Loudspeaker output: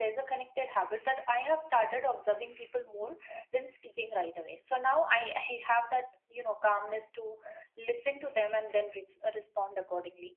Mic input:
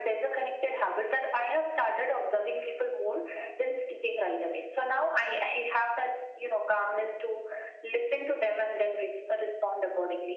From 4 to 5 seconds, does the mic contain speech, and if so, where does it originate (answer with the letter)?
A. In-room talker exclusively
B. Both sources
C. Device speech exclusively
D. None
C